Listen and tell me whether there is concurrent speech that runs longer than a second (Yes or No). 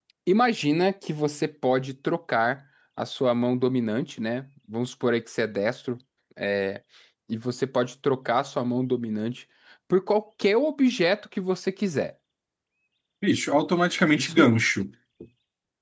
No